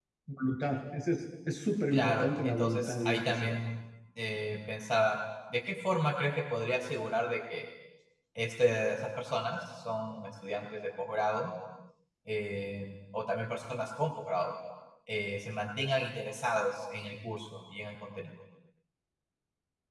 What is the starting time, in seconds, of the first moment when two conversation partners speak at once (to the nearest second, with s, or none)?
2 s